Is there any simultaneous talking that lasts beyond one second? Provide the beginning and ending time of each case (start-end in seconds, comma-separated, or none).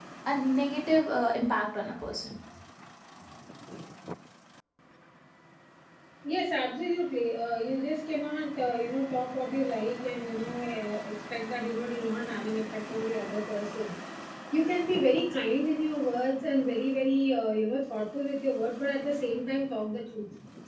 none